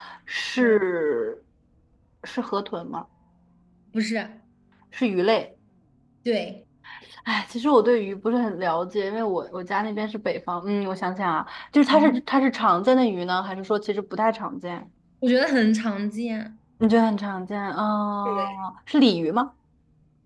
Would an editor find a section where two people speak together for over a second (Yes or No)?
No